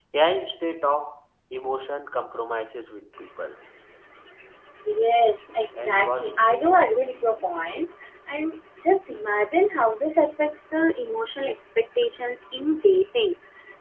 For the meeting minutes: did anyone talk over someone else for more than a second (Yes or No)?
Yes